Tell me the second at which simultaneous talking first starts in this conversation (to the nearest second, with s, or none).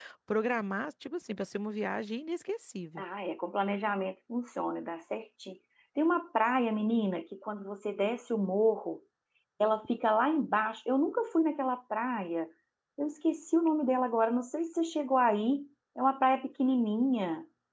none